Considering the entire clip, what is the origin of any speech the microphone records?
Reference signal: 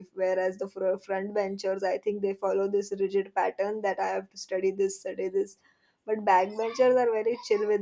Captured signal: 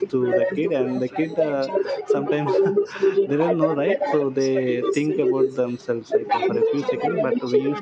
both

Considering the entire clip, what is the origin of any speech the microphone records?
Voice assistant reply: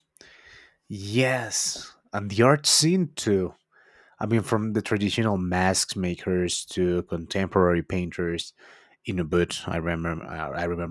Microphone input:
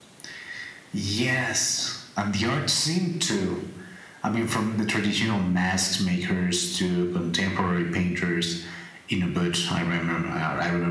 echo only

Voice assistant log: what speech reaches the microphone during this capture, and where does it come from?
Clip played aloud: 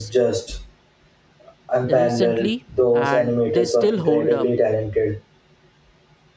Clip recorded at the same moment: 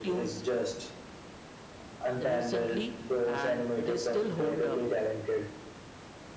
echo only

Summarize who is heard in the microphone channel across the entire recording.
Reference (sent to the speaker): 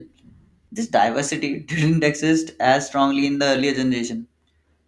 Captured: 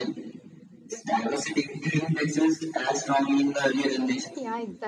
both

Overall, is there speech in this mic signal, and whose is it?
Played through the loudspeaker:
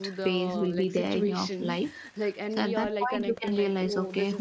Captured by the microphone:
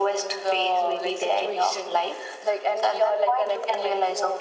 echo only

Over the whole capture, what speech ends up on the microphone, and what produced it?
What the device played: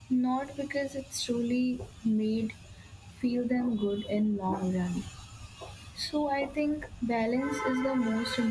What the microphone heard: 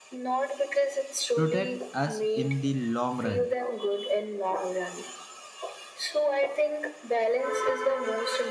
both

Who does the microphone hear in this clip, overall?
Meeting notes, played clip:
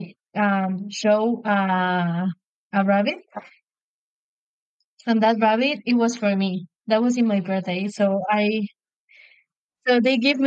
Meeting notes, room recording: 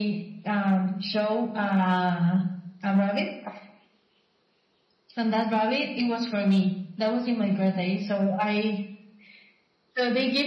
echo only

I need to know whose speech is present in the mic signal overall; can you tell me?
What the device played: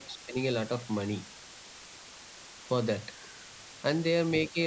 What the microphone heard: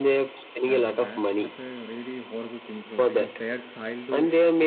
both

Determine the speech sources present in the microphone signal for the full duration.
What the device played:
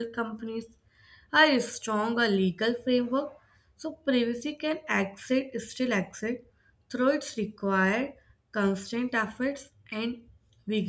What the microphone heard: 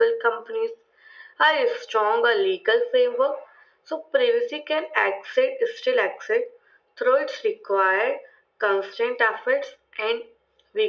echo only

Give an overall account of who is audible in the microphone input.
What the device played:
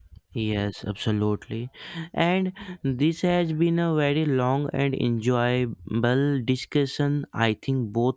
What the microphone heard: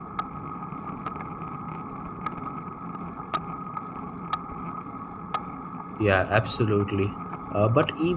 user only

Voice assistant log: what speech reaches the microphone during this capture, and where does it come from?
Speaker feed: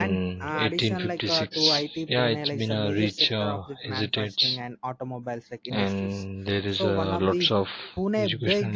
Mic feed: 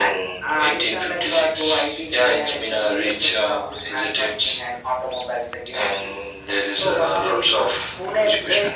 echo only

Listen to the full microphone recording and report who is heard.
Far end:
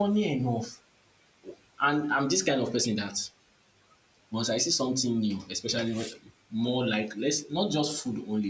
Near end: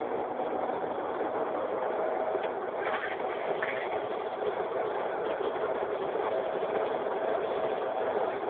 neither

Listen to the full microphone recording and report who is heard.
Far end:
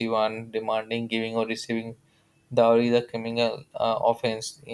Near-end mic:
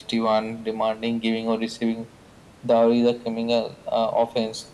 echo only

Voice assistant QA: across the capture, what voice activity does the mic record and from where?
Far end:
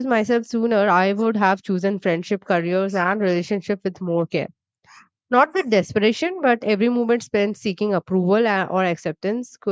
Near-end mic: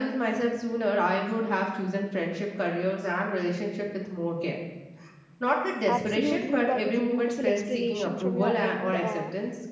both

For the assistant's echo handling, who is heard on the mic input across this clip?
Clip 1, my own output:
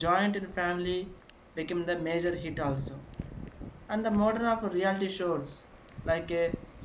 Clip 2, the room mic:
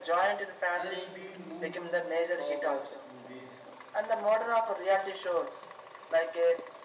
both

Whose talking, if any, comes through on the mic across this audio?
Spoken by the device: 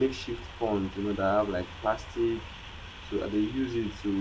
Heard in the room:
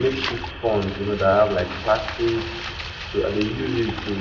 echo only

